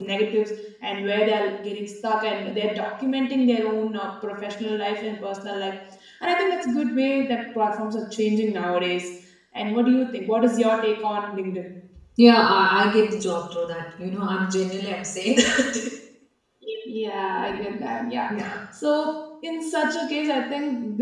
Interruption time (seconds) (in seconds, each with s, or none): none